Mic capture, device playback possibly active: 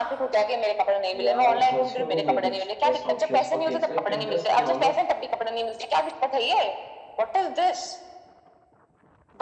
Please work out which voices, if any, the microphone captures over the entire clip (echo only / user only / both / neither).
both